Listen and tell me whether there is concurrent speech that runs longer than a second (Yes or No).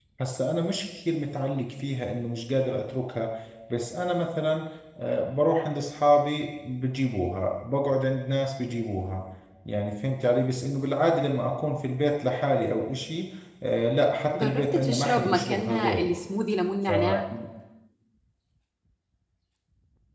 Yes